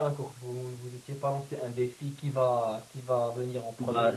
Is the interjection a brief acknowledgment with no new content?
No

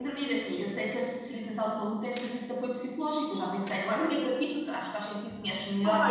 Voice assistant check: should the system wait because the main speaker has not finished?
No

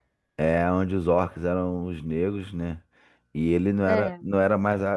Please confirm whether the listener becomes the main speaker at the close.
No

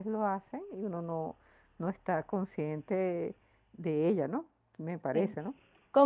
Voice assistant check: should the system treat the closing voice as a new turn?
Yes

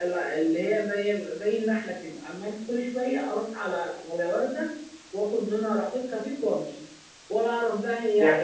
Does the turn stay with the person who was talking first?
No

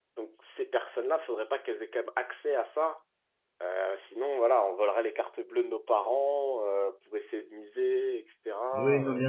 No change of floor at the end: No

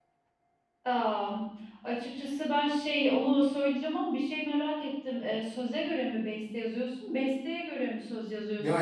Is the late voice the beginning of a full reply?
Yes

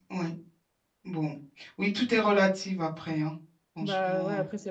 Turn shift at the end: Yes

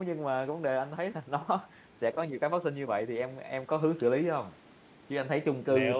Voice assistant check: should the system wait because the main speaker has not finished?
Yes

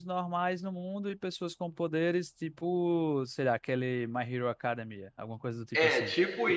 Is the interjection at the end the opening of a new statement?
Yes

